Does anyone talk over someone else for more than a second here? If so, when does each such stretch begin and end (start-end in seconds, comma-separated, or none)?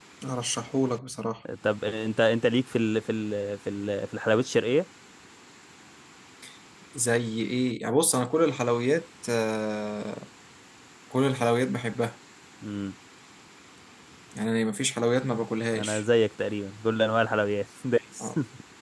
none